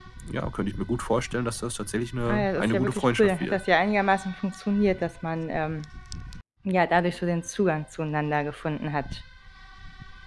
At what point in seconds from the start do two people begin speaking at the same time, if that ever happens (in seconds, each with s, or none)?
2.3 s